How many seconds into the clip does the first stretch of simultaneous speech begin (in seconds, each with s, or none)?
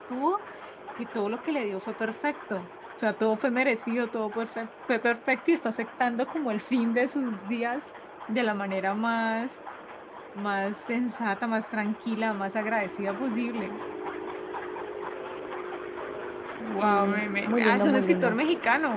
16.8 s